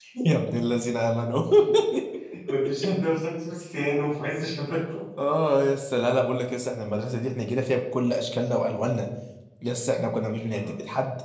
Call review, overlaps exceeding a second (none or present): none